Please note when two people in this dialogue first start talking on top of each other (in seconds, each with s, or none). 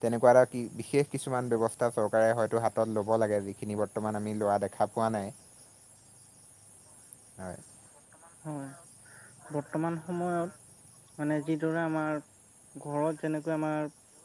none